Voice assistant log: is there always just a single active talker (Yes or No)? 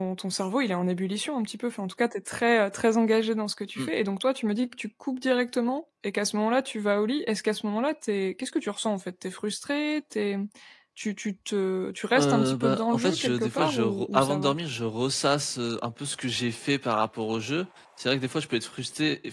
No